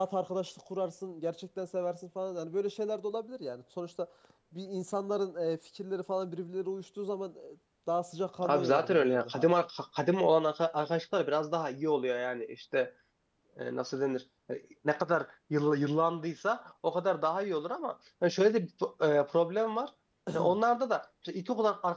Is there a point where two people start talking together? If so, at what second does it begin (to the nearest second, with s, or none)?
8 s